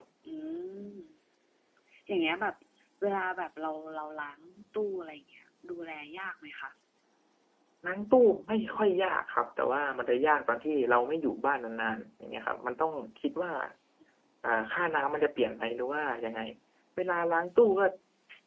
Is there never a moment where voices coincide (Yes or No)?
Yes